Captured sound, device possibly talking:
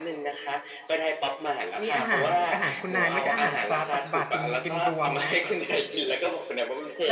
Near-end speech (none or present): present